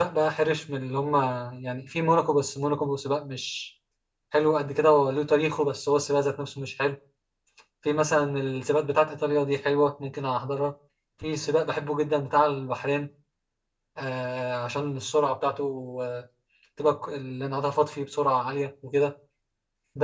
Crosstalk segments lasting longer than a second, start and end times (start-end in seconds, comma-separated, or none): none